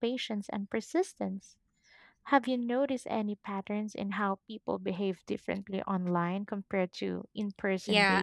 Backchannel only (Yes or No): No